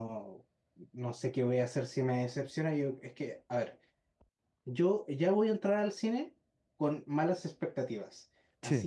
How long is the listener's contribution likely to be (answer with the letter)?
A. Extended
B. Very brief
B